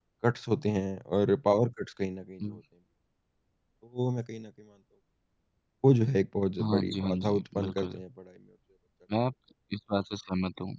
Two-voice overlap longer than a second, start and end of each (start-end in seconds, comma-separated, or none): 6.6-8.0